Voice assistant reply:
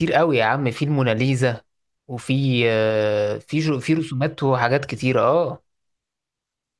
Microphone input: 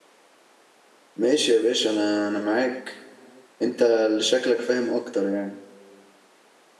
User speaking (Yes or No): Yes